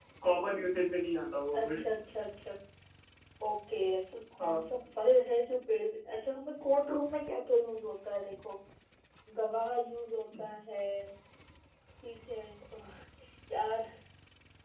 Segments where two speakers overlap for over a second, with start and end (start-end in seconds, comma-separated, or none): none